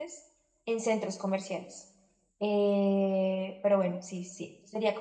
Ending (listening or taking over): listening